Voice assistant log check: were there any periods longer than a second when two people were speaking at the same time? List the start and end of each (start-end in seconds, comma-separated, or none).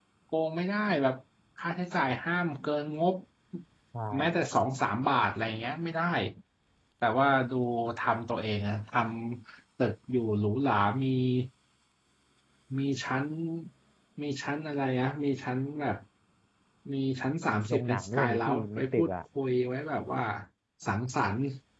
17.7-19.1